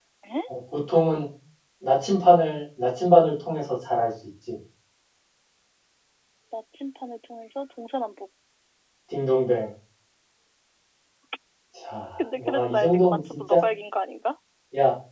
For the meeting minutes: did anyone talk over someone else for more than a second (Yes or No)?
Yes